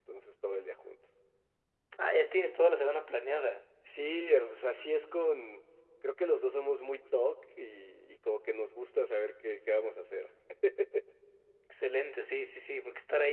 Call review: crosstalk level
none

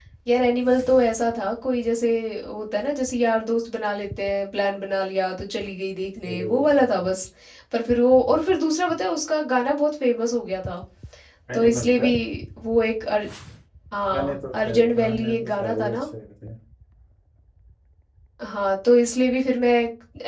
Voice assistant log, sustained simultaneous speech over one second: present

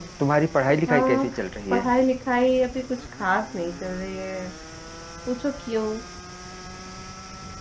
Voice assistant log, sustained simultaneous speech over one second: none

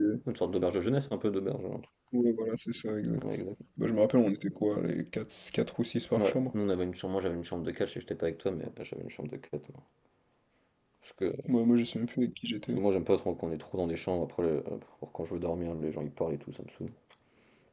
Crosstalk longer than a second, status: none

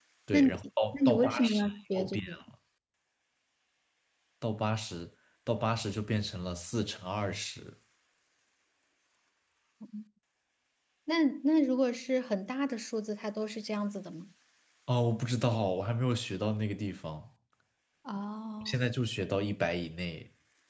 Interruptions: present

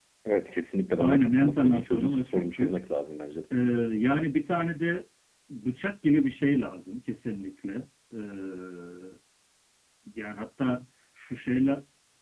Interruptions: present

